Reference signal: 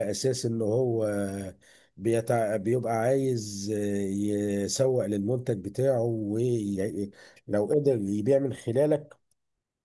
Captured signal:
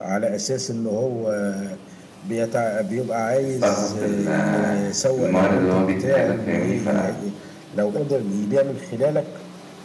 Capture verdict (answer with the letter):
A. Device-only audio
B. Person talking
B